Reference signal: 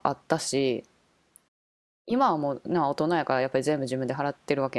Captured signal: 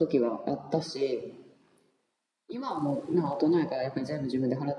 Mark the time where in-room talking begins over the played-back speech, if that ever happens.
none

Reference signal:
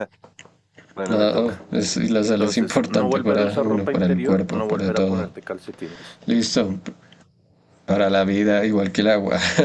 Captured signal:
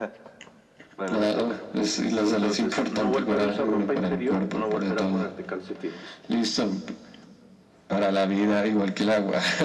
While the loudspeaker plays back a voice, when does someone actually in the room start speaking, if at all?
none

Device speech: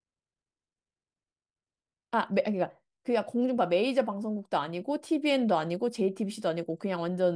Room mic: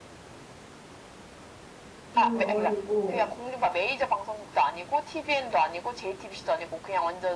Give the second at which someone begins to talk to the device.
2 s

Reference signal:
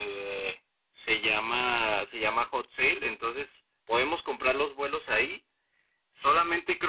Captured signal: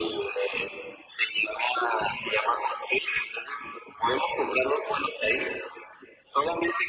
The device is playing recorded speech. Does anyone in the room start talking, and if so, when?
none

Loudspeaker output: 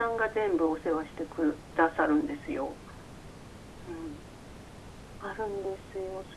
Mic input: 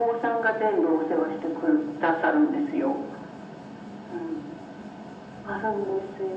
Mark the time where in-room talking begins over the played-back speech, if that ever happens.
none

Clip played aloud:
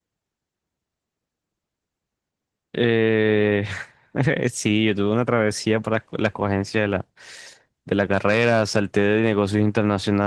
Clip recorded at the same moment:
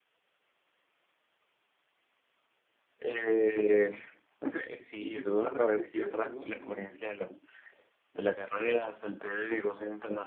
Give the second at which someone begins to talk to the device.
5 s

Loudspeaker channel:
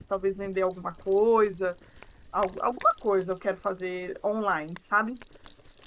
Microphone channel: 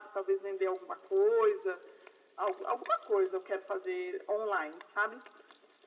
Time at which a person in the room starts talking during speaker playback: none

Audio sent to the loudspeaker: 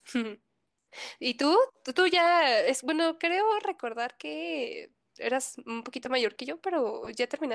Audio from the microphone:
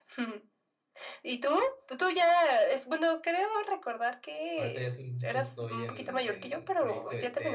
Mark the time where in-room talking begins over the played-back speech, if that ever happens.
5 s

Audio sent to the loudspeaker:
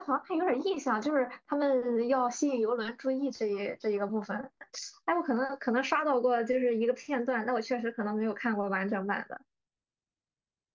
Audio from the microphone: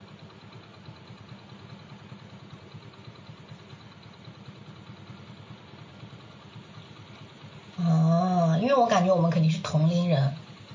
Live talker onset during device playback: 8 s

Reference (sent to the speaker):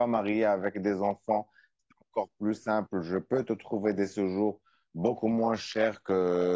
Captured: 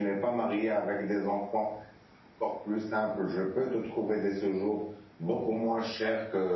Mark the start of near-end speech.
none

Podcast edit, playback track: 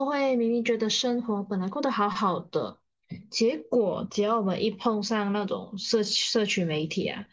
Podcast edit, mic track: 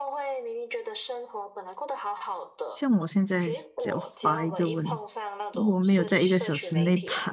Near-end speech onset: 3 s

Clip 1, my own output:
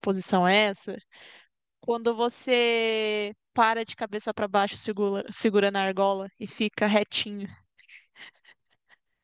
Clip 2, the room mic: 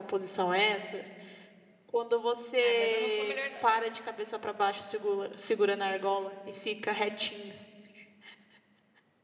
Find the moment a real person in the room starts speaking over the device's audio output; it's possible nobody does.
3 s

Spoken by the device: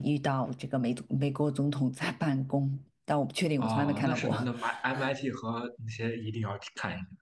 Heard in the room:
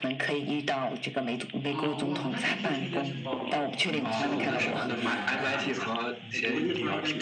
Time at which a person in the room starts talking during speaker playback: 2 s

